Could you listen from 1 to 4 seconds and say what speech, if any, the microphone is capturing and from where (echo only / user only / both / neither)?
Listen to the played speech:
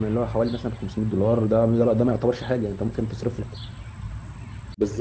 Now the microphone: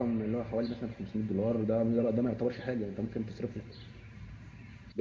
echo only